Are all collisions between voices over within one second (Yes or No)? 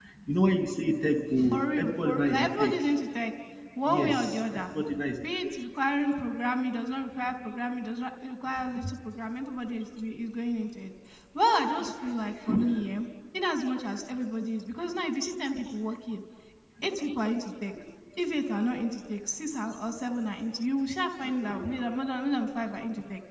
No